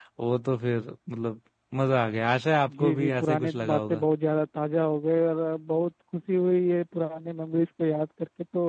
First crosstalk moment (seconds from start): 2.6 s

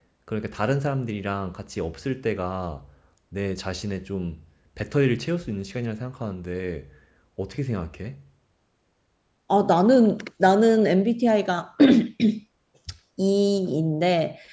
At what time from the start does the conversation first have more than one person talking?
none

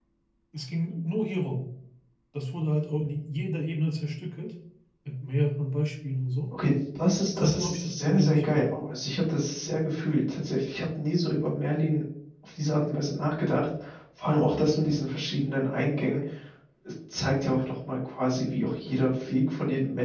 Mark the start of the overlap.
7.4 s

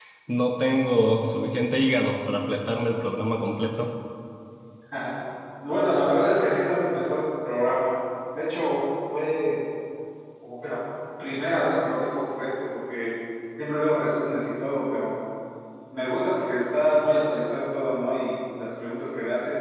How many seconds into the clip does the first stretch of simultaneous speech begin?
none

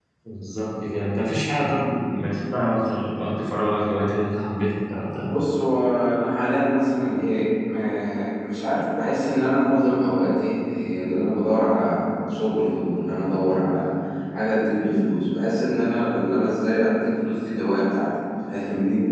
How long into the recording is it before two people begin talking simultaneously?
none

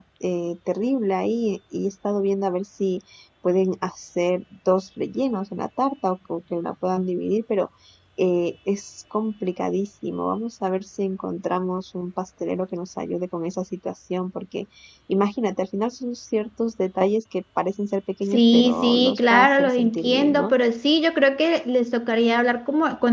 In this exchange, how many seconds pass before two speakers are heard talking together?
18.3 s

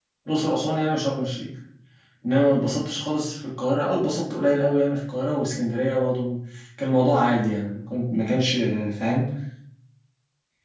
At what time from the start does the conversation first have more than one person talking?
none

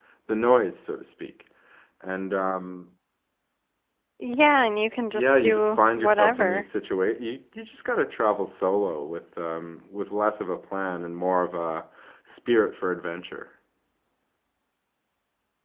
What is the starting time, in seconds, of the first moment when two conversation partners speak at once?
5.1 s

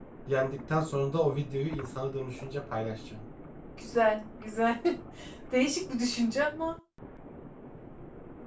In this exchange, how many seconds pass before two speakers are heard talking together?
none

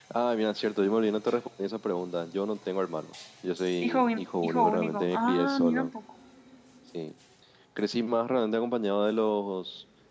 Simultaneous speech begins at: 3.8 s

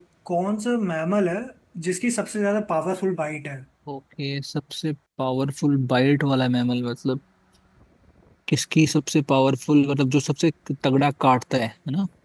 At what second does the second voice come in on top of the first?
none

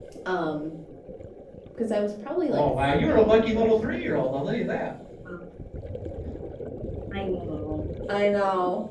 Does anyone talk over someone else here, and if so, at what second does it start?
2.5 s

